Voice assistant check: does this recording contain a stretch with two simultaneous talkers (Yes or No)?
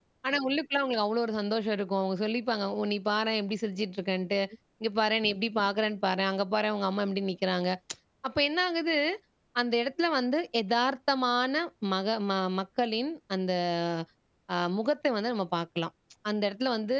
No